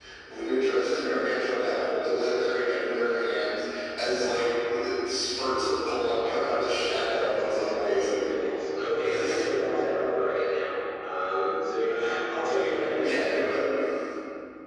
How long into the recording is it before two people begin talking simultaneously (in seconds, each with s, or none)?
7.0 s